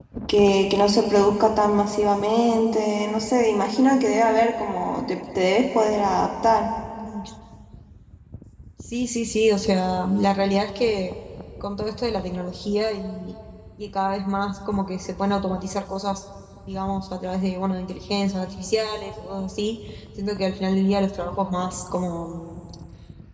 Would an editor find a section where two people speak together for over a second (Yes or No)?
No